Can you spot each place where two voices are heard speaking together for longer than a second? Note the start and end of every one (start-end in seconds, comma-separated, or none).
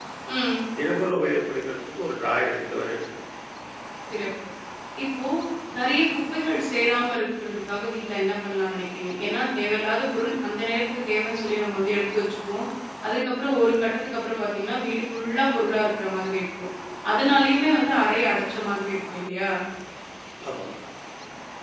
none